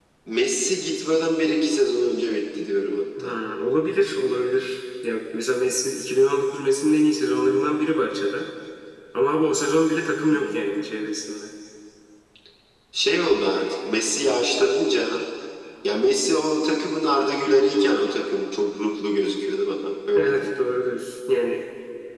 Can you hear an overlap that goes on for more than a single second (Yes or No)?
No